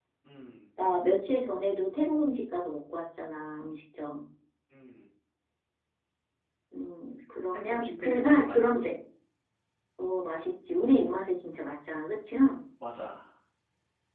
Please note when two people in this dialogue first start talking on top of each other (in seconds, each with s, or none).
7.5 s